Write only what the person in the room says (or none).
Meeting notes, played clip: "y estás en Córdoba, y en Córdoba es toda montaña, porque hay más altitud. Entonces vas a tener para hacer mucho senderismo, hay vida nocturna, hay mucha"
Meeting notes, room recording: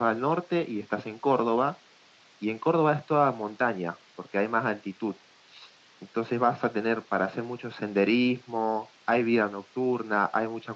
none